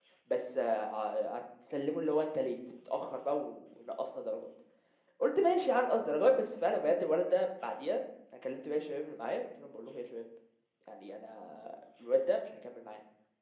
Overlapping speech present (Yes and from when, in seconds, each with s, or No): No